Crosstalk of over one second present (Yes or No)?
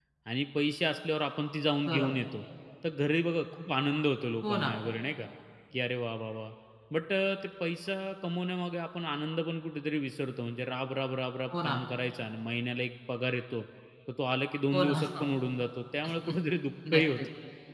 No